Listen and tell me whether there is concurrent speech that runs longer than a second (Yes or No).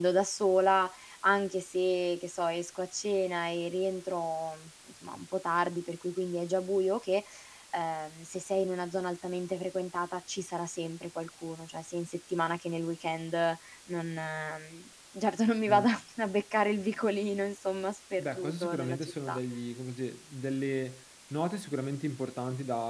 Yes